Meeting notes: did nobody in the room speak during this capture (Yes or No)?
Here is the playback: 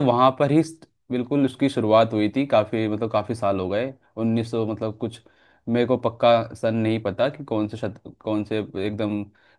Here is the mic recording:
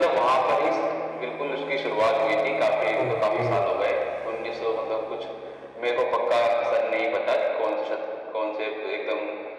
No